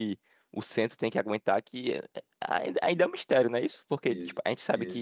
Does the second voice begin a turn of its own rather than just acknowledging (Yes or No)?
No